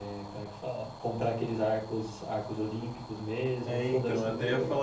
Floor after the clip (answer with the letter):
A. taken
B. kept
A